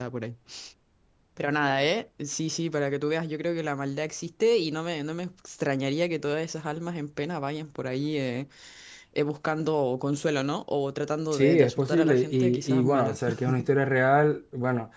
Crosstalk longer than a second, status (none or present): present